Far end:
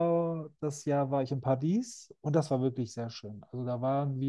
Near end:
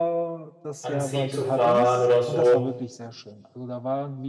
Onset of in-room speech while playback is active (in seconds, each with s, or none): 0.8 s